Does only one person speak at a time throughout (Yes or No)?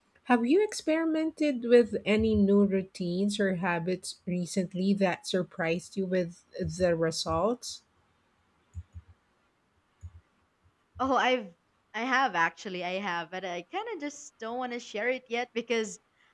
Yes